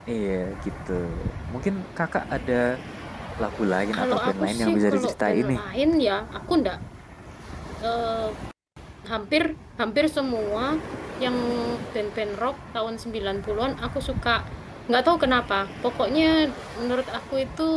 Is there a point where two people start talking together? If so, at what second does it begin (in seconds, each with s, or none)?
3.9 s